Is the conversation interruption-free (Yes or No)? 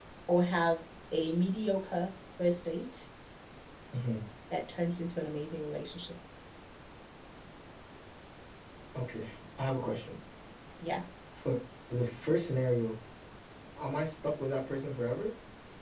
Yes